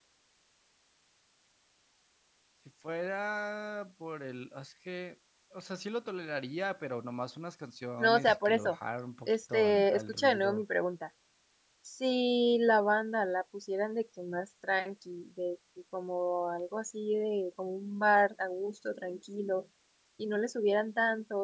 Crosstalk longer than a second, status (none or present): present